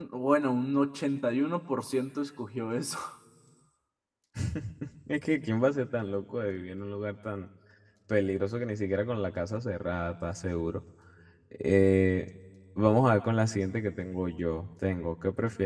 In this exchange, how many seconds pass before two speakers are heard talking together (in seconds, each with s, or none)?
none